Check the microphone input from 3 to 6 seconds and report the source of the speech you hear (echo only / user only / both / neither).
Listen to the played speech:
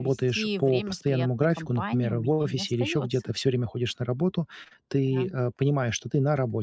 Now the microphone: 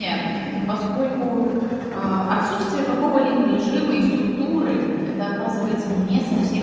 user only